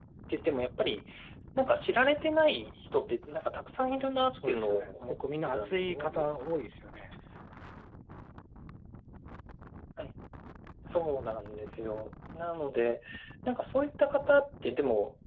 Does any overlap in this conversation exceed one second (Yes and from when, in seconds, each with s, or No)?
Yes, from 4.3 s